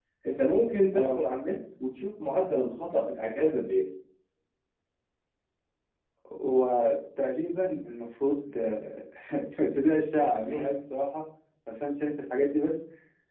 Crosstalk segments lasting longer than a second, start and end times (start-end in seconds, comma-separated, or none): none